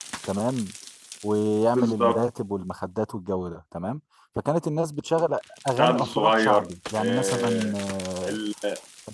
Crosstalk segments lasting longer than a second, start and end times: 5.8-7.7

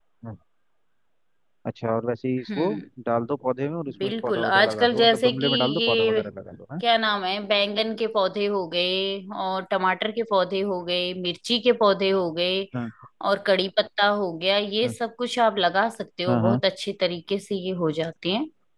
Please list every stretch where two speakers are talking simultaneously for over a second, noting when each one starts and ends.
4.0-6.2

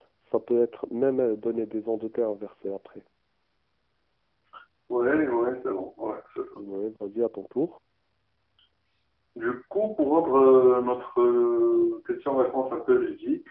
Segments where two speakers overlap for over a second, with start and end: none

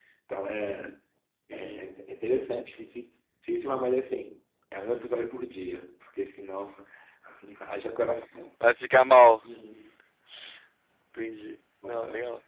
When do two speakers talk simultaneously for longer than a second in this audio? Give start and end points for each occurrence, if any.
none

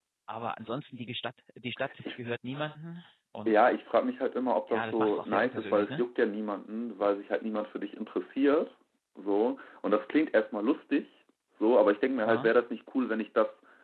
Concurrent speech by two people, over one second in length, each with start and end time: 4.7-6.0

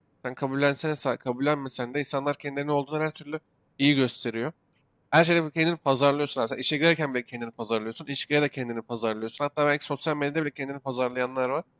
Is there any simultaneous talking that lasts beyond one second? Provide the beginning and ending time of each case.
none

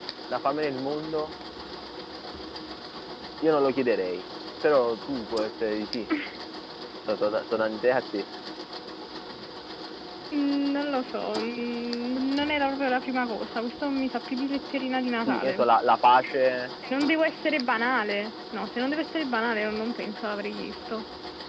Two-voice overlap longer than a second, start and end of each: none

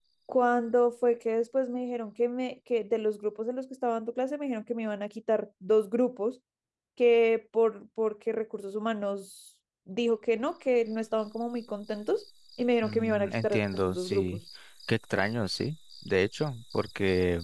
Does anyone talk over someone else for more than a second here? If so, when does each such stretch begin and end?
12.8-14.4

